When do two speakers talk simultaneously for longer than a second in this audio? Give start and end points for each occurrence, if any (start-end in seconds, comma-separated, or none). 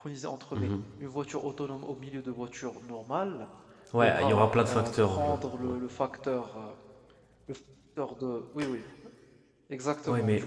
4.0-5.8